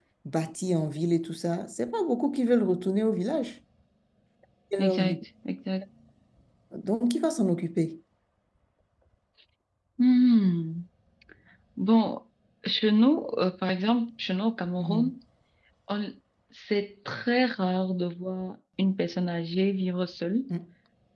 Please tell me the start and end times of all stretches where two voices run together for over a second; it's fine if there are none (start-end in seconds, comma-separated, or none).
none